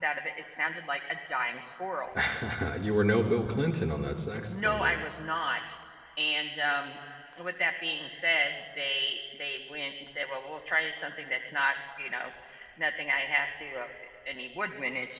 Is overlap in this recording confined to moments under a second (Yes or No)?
Yes